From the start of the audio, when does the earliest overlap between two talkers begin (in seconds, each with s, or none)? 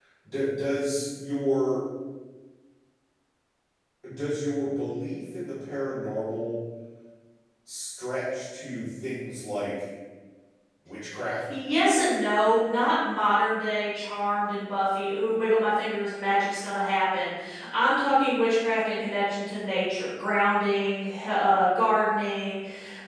none